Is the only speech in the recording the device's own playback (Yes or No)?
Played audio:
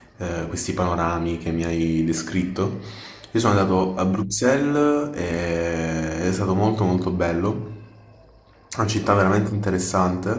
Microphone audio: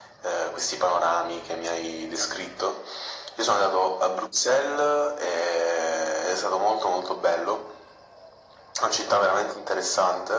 Yes